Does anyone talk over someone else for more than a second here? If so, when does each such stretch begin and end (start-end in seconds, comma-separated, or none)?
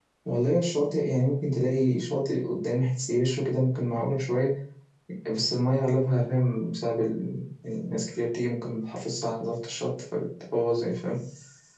none